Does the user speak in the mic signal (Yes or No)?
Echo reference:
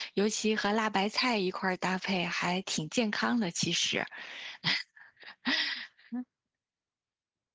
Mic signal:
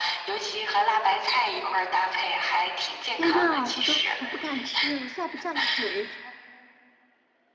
Yes